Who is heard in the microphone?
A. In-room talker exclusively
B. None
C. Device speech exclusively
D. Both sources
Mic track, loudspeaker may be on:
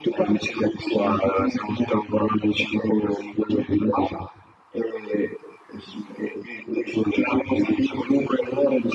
C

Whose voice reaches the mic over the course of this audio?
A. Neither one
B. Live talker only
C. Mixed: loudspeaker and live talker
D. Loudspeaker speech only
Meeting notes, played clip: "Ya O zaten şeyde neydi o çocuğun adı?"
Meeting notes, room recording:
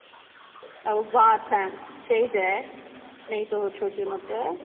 D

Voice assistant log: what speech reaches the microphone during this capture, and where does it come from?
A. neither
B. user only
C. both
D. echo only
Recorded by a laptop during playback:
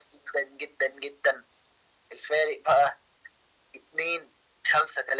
D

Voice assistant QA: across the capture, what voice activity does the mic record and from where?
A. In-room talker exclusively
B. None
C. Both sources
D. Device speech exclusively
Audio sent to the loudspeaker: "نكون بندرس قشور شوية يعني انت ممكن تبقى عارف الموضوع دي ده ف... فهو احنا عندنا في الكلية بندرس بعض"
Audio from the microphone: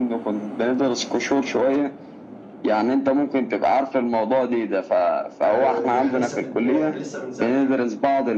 C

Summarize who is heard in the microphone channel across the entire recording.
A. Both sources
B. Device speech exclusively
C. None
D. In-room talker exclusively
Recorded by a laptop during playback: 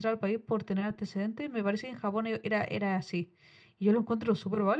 D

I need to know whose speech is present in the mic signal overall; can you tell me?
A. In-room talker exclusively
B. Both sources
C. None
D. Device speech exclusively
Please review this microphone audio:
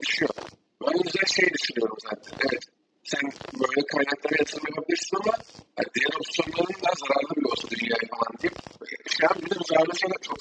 D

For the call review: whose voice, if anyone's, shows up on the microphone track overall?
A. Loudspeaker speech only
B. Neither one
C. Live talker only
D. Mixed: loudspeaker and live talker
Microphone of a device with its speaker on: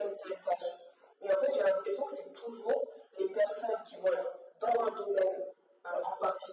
A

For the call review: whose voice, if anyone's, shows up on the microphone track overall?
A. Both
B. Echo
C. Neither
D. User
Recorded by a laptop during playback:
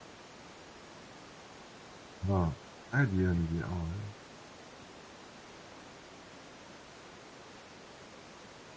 D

